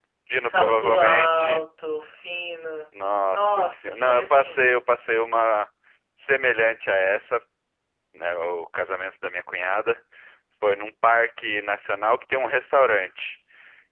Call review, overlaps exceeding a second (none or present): present